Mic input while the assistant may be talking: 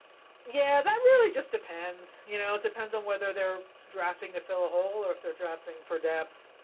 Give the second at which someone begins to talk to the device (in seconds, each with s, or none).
none